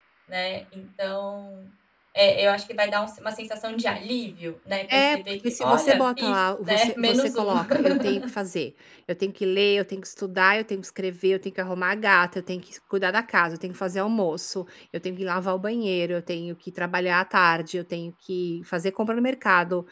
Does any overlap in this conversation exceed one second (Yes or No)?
Yes